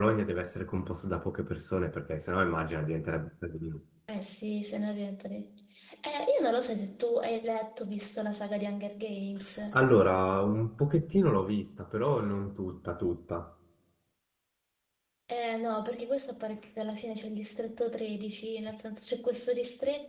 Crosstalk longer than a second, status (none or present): none